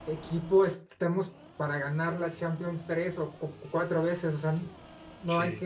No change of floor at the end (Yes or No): Yes